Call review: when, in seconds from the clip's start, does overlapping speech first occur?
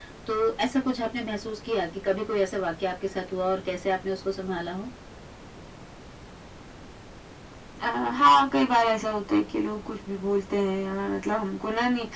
none

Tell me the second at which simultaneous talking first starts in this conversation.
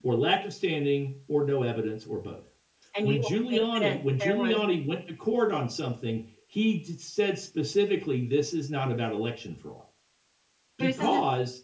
3.0 s

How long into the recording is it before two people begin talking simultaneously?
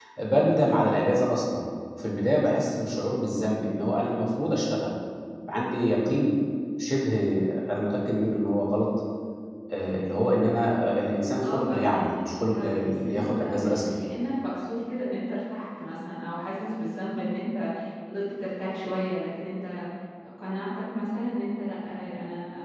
11.4 s

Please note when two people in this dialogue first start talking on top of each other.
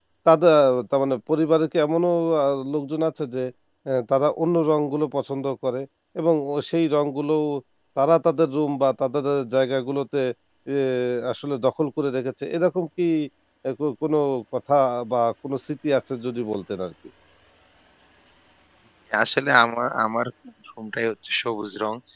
none

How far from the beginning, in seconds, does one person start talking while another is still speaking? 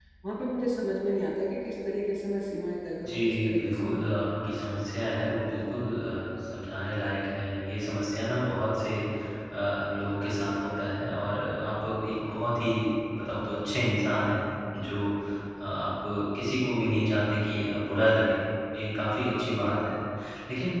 3.0 s

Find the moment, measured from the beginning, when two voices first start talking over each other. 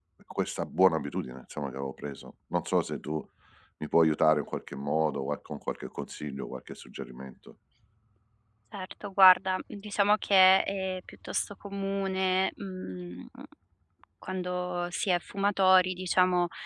none

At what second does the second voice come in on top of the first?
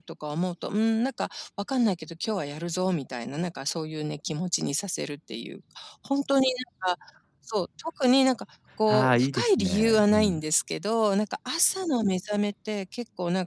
8.9 s

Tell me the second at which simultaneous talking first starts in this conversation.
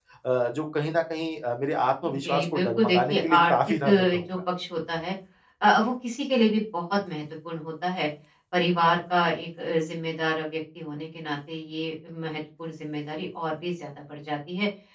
2.0 s

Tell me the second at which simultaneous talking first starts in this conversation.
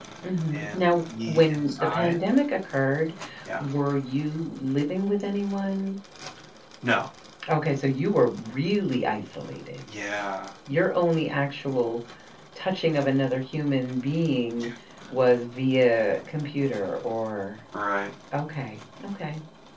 0.5 s

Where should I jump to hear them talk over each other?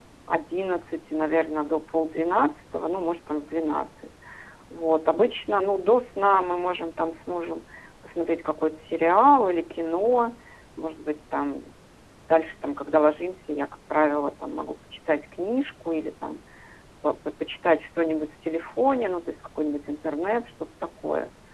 none

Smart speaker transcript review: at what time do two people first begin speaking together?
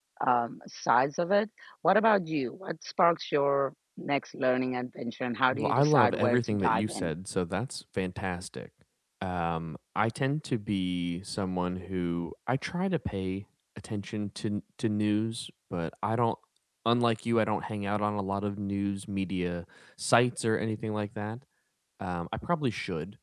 5.5 s

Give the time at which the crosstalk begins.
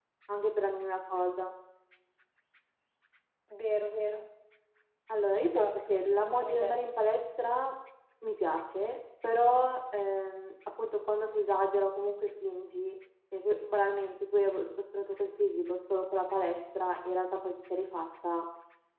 5.4 s

